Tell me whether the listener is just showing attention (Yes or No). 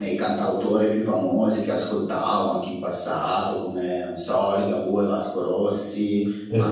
Yes